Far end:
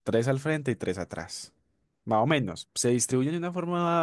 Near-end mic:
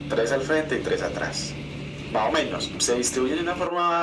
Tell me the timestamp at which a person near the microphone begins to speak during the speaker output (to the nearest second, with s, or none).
none